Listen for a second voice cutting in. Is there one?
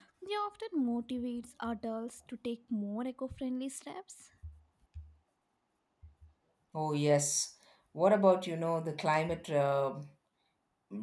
No

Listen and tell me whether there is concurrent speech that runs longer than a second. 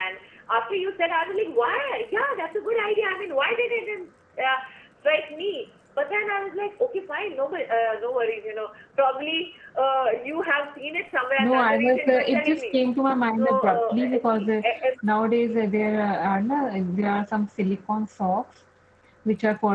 Yes, from 11.4 s

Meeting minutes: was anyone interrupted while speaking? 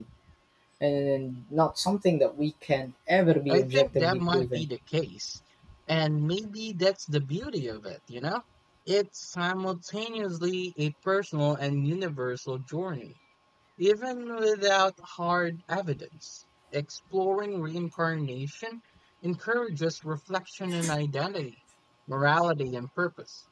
Yes, from 3.5 s

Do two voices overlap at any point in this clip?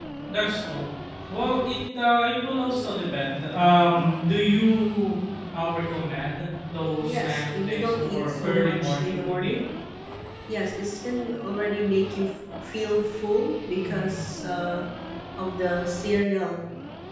Yes, from 7.0 s

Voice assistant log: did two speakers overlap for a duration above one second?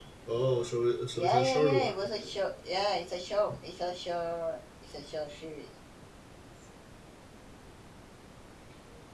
Yes, from 1.2 s

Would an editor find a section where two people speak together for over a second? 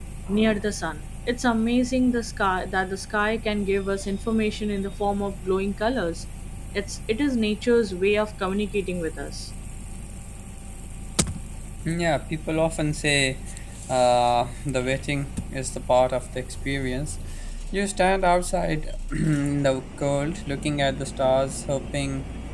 No

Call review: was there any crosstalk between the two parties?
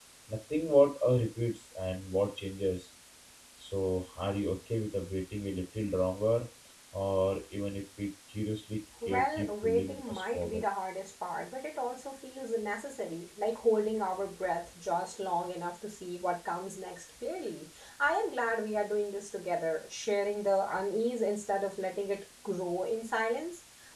Yes, from 9.0 s

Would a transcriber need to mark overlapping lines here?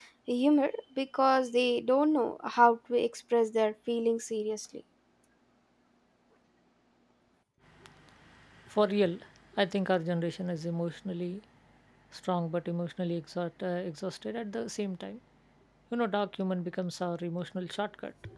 No

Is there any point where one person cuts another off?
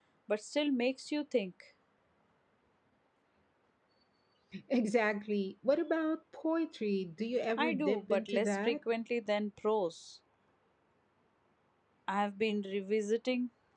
Yes, from 7.6 s

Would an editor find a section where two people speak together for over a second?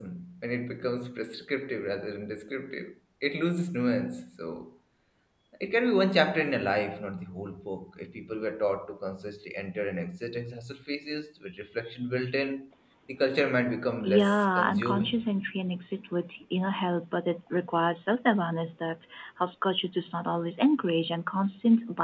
Yes, from 14.0 s

